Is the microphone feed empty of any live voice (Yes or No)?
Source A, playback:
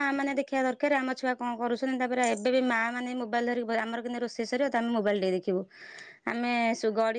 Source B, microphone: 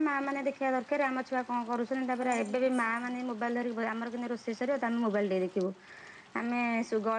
No